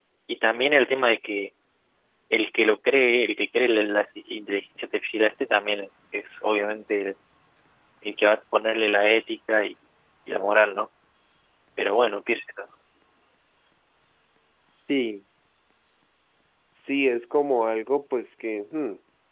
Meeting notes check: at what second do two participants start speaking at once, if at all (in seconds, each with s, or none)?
none